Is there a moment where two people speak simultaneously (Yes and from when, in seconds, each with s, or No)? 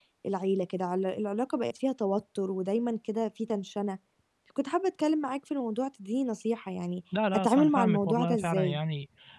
Yes, from 7.1 s